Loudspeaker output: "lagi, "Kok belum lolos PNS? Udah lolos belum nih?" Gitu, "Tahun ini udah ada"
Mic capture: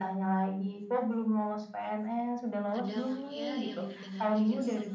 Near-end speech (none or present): present